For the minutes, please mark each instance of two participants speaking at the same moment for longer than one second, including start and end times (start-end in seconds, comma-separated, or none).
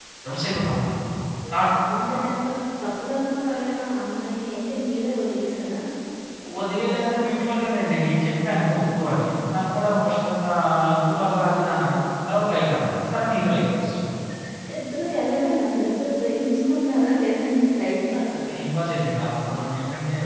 none